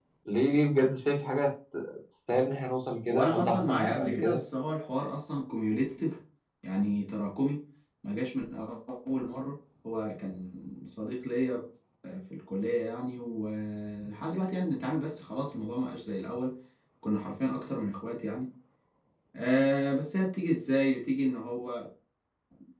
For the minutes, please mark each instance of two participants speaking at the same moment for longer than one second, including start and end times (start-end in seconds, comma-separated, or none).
3.1-4.4